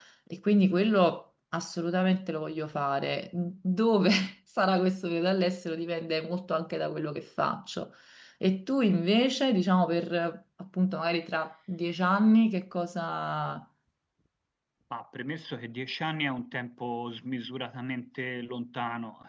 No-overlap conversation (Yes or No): Yes